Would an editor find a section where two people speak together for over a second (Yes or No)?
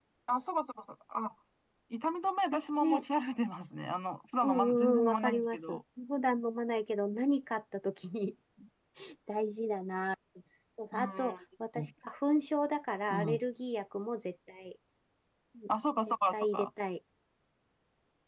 Yes